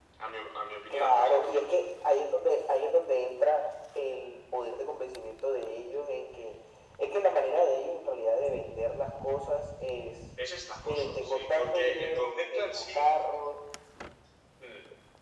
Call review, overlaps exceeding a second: present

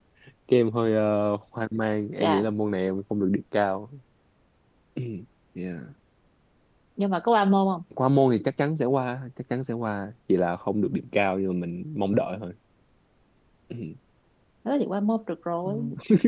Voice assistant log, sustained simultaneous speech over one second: none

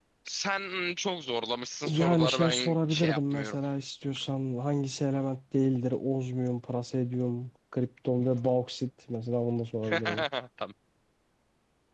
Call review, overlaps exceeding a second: present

